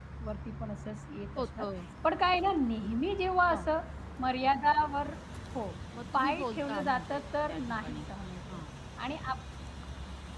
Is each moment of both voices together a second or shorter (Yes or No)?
No